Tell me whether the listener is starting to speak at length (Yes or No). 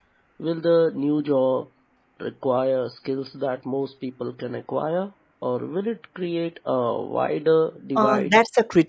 Yes